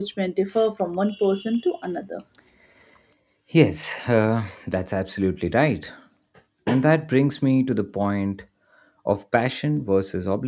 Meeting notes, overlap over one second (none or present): none